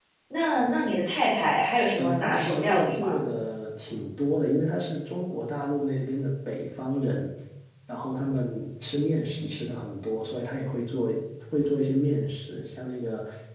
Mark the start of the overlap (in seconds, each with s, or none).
2.0 s